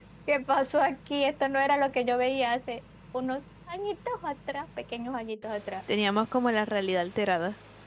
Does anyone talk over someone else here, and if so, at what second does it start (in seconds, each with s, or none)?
none